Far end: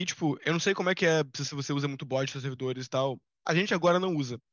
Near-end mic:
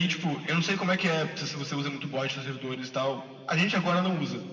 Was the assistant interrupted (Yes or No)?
No